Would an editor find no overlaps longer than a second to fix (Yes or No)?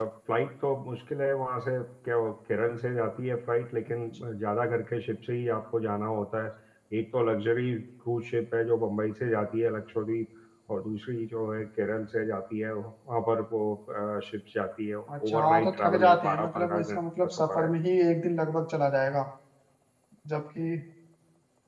No